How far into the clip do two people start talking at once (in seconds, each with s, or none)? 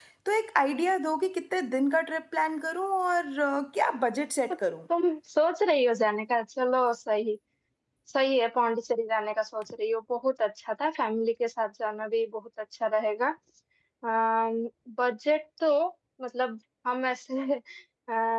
none